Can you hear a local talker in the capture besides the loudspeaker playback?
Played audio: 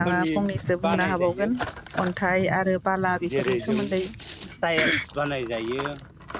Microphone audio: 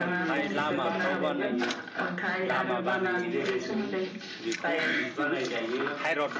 Yes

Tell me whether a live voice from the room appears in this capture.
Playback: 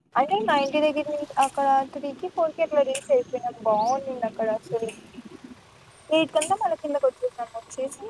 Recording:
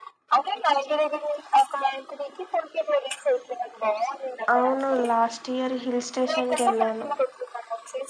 Yes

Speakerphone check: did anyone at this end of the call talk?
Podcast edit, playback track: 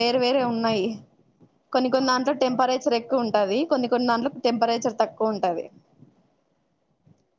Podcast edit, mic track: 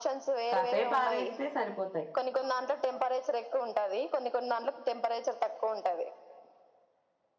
Yes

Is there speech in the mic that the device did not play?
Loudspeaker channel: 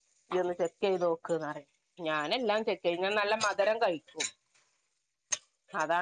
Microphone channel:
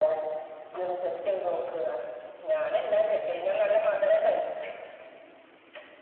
No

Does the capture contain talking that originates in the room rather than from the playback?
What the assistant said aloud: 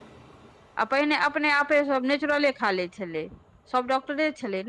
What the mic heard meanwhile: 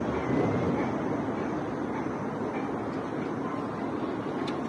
No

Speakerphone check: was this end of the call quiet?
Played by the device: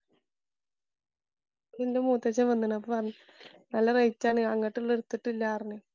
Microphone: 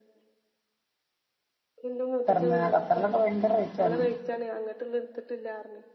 No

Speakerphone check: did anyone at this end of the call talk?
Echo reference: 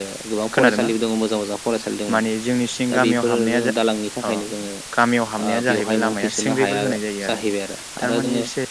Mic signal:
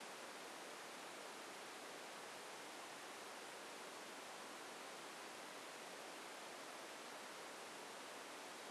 No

